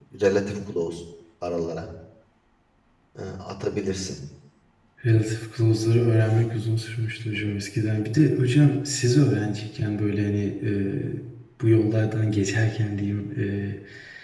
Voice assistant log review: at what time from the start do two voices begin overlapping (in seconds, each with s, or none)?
none